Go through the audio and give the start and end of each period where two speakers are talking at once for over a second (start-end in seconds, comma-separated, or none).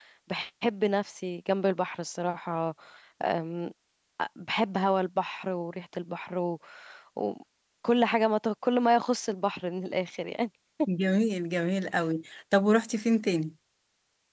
none